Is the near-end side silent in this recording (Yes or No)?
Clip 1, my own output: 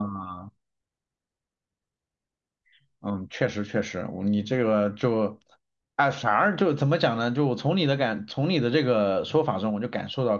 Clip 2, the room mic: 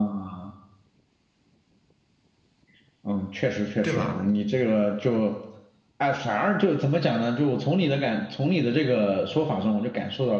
No